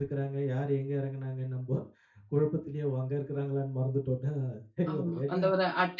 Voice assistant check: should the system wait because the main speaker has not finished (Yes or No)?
No